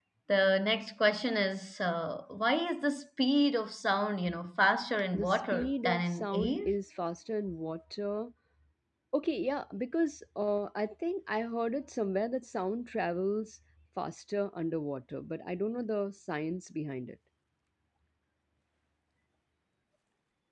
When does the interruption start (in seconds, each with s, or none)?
5.1 s